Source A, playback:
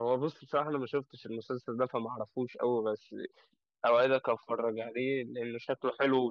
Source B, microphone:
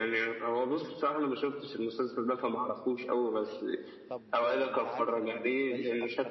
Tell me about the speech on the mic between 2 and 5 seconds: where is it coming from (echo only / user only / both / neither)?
both